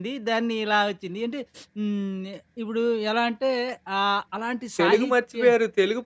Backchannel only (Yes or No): No